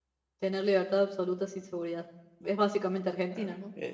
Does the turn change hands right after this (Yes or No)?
Yes